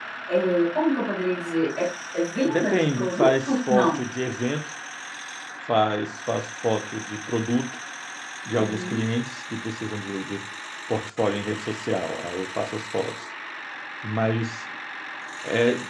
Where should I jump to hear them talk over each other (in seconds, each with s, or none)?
2.5 s